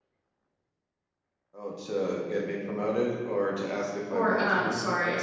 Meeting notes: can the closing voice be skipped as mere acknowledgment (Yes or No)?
No